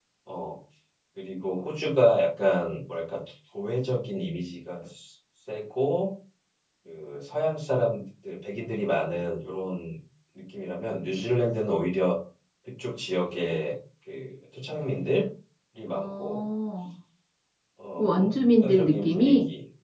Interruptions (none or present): present